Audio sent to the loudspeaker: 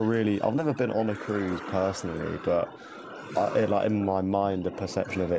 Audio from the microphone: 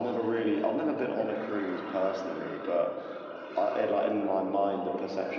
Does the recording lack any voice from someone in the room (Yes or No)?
Yes